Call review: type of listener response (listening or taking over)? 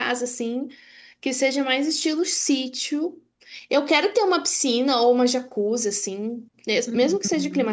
listening